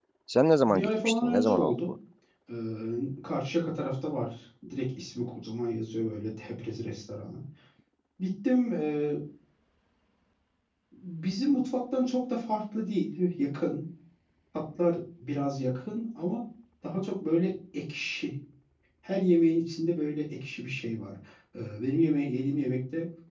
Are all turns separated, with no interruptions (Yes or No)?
No